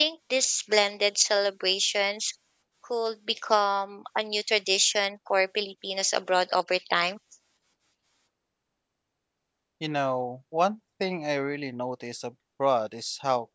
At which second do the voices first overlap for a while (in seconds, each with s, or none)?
none